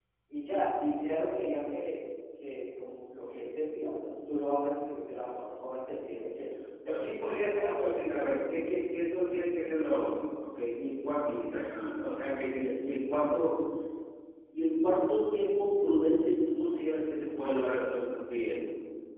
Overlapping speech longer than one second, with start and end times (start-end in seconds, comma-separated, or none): 6.8-8.4